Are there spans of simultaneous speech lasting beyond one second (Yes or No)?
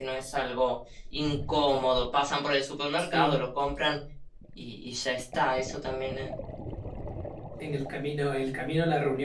No